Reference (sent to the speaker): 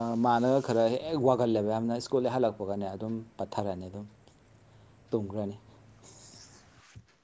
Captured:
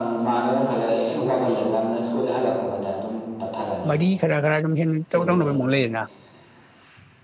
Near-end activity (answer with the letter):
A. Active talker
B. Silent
A